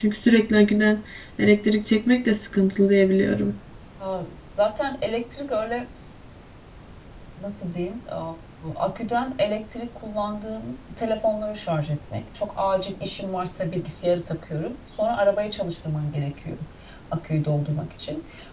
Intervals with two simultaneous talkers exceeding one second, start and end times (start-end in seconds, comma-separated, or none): none